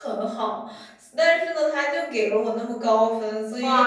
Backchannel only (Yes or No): No